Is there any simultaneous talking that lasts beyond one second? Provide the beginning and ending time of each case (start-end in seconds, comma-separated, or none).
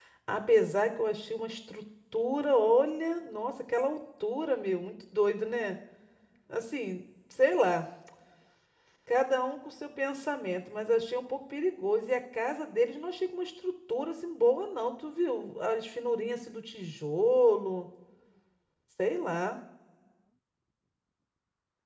none